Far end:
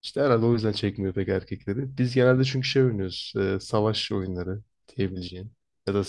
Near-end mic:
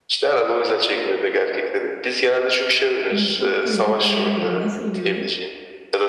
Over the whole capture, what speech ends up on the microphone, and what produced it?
both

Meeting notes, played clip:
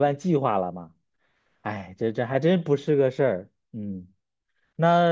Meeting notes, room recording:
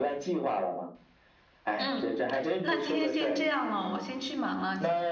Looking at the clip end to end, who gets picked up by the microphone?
both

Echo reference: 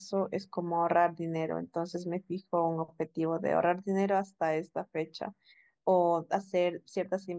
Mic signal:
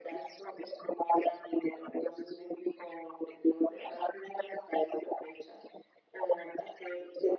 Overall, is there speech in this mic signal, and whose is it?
echo only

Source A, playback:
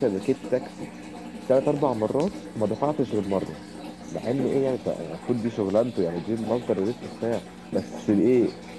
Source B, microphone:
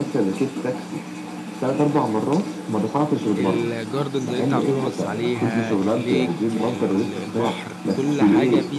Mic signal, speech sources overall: both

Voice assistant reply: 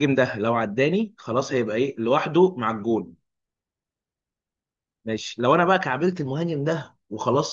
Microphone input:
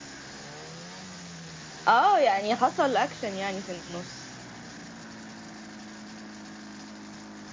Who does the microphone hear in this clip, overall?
user only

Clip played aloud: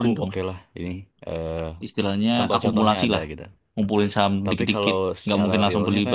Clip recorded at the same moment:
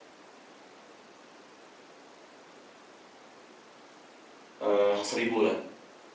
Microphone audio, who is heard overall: user only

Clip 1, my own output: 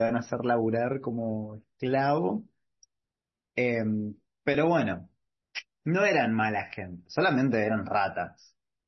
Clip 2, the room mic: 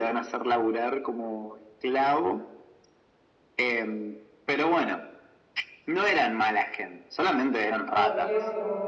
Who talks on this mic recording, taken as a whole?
both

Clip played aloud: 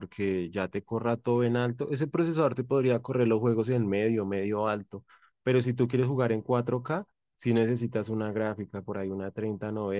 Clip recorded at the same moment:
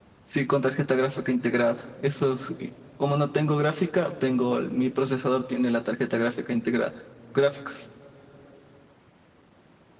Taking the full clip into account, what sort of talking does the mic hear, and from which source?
user only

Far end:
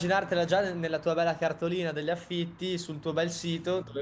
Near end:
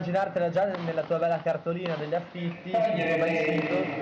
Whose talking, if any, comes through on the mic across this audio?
both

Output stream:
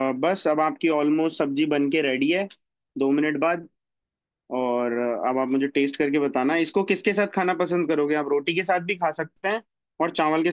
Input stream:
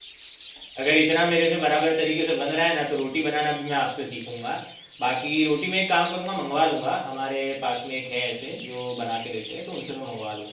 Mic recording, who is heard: user only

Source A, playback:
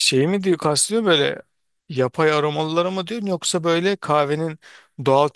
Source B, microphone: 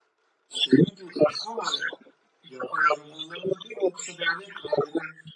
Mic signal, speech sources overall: echo only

